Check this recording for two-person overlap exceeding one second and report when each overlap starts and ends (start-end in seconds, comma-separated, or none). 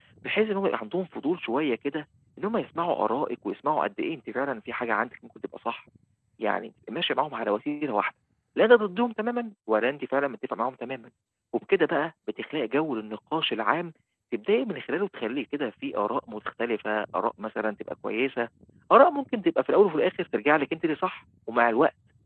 none